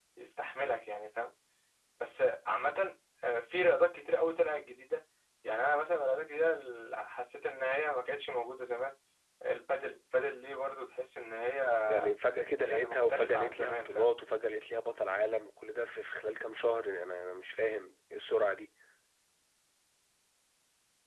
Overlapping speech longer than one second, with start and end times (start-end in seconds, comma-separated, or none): 12.6-14.1